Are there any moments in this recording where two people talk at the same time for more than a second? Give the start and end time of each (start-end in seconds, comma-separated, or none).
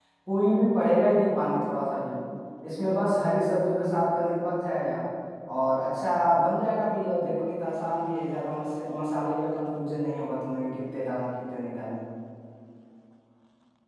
none